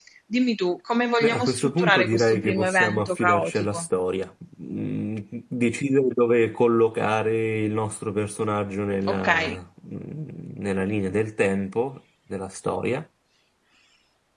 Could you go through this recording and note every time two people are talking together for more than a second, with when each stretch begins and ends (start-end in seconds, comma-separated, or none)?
1.2-3.9